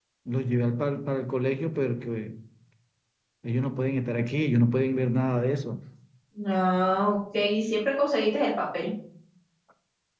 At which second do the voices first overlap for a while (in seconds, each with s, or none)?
none